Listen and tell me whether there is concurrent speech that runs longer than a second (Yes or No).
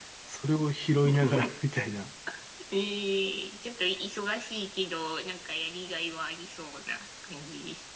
No